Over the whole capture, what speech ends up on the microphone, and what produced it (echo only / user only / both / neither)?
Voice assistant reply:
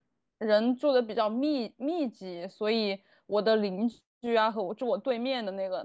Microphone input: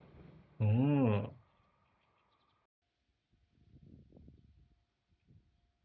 user only